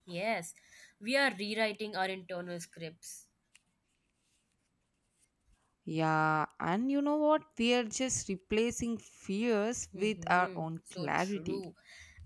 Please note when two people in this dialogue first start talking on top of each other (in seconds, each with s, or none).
9.9 s